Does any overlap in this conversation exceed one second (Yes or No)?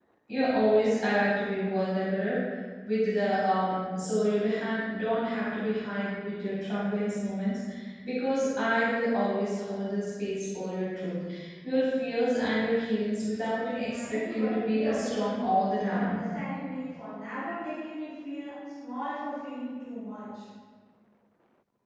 Yes